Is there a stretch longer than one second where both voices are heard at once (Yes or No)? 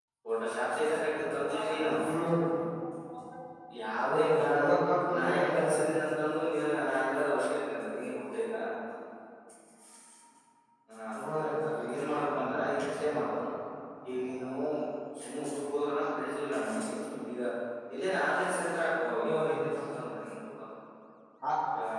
Yes